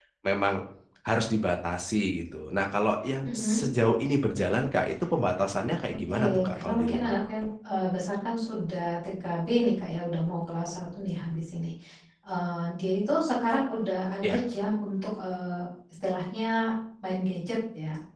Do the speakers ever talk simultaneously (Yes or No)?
Yes